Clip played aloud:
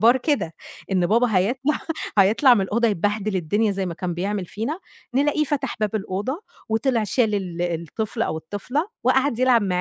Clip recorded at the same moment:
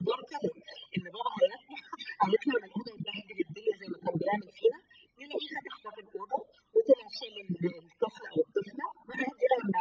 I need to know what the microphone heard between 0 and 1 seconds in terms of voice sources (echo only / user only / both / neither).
echo only